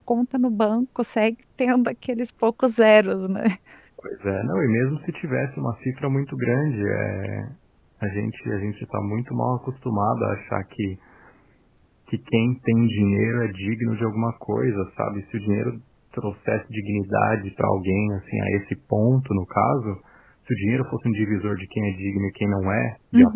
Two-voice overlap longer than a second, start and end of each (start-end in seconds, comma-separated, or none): none